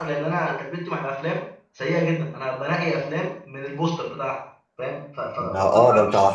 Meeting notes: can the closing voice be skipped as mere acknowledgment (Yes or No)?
No